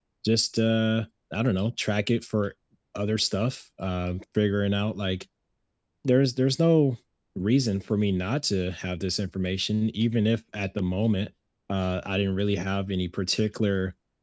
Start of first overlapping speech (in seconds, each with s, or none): none